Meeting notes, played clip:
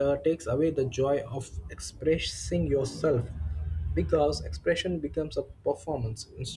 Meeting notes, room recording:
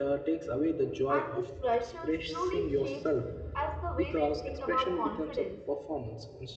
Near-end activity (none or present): present